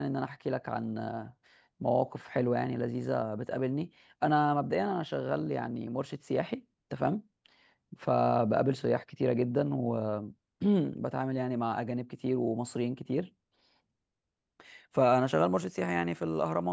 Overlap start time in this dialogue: none

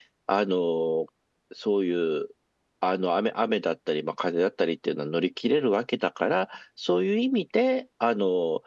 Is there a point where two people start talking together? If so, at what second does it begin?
none

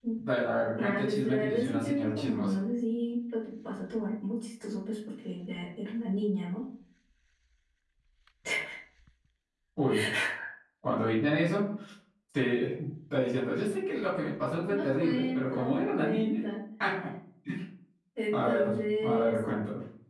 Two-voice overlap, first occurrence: 1 s

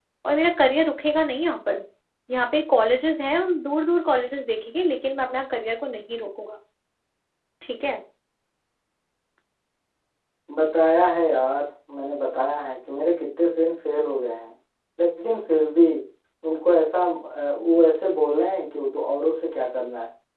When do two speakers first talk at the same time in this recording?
none

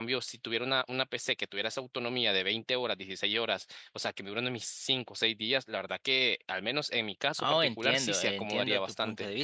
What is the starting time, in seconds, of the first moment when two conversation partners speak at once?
7 s

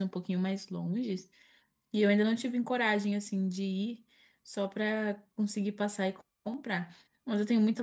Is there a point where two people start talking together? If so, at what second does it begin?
none

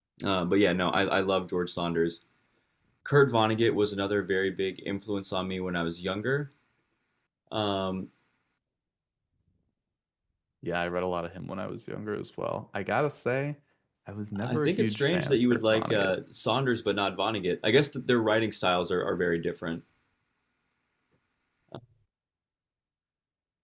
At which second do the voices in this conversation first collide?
14 s

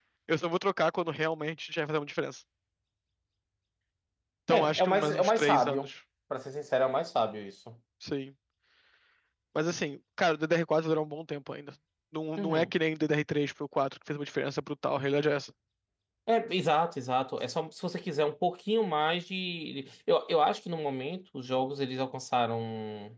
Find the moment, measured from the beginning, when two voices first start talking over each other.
5 s

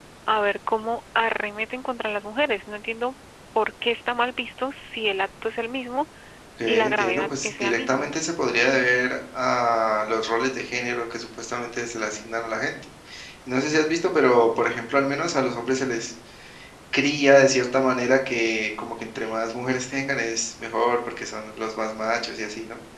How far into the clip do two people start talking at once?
7 s

